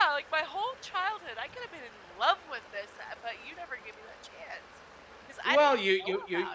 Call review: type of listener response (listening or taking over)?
taking over